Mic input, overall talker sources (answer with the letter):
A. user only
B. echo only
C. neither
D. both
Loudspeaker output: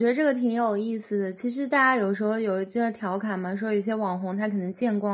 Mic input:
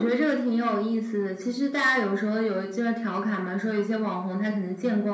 B